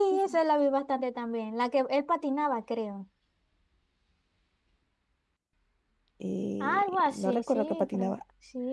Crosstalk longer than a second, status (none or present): present